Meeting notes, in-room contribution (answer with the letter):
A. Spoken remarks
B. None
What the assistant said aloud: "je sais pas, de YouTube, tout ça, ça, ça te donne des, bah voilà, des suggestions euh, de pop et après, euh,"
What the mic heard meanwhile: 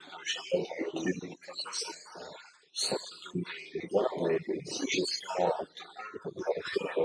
B